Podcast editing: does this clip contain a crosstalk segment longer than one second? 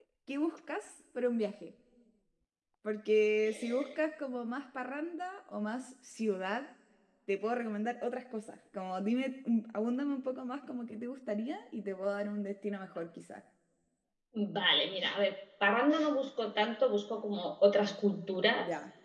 No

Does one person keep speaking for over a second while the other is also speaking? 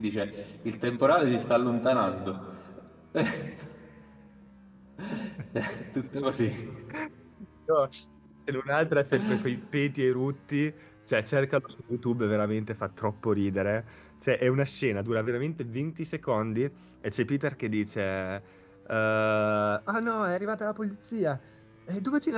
No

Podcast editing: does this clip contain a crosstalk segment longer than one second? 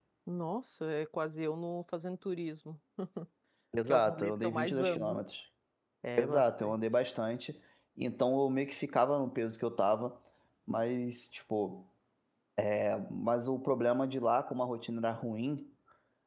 Yes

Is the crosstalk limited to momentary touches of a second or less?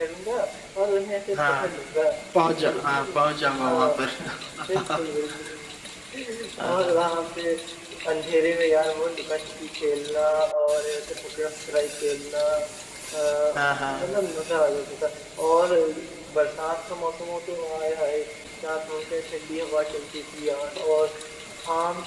No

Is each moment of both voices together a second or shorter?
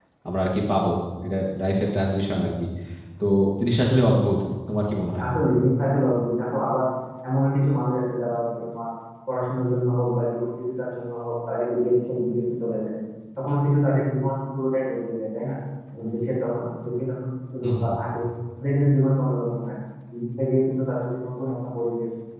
Yes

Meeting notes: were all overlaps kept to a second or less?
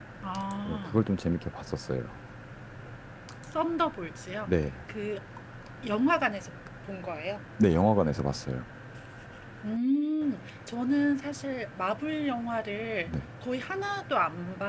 Yes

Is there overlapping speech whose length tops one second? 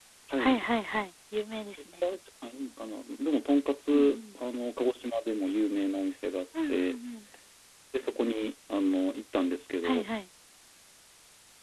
No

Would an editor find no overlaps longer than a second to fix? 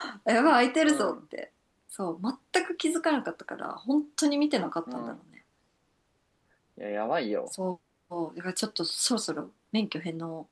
Yes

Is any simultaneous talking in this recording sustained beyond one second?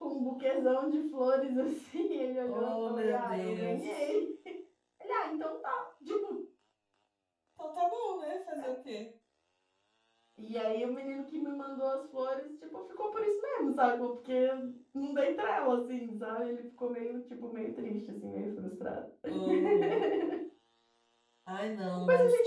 Yes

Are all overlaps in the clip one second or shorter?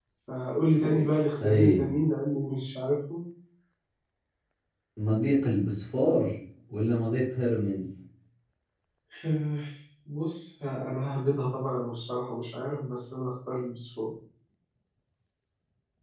Yes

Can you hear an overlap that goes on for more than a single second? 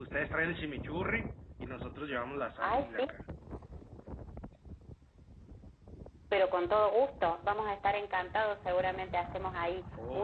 No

